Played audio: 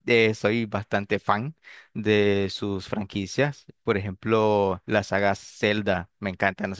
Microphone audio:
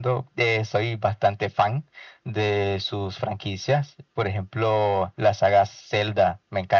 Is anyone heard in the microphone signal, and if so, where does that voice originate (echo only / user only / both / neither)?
echo only